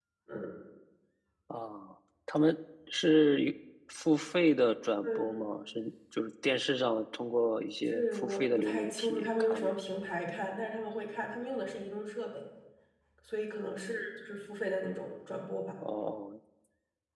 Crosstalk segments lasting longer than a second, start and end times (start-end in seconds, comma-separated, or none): 7.9-9.7